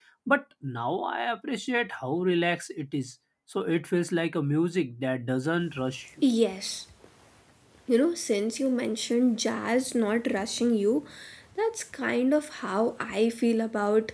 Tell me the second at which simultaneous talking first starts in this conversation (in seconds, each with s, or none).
none